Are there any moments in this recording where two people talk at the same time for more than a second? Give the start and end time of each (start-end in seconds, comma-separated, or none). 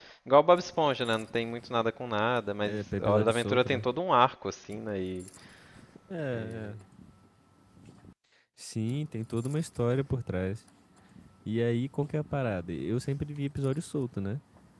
2.6-3.9